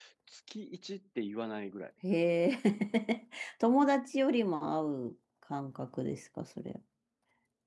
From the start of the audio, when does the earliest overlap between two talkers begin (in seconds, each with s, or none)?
none